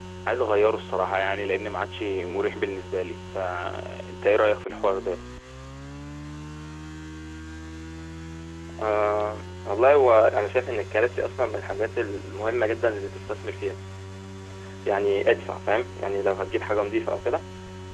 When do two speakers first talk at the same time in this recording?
none

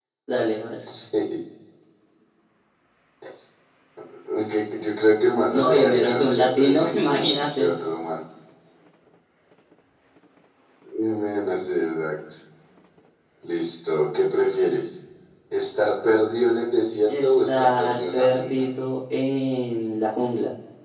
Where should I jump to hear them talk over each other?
5.5 s

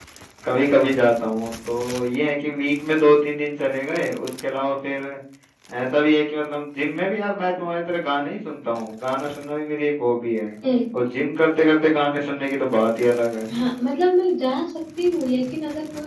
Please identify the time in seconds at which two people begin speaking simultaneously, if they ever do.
none

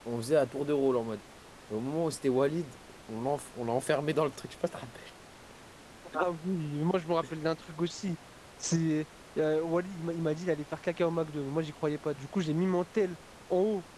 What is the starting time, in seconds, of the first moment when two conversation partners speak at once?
none

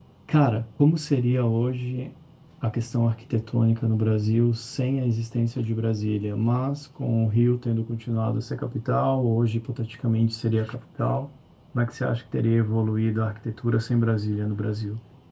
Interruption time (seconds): none

